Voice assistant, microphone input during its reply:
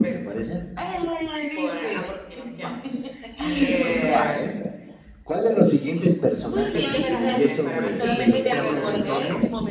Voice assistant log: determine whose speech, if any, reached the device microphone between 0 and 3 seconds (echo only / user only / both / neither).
both